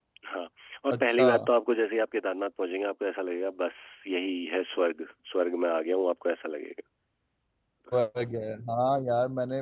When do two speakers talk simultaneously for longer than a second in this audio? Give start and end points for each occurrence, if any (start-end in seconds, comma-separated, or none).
none